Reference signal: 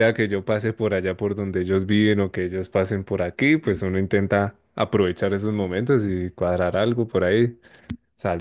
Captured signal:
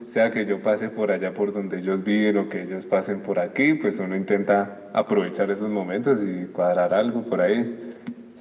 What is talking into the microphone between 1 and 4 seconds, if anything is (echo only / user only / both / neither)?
echo only